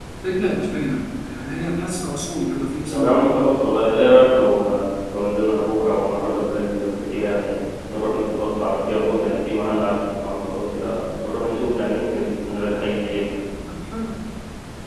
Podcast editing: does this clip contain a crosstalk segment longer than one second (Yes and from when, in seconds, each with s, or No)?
No